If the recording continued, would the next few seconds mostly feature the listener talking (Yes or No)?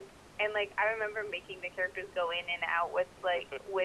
No